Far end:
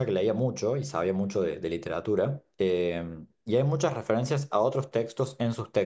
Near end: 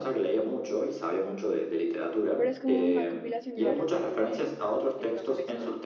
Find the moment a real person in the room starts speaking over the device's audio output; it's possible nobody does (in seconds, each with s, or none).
2.3 s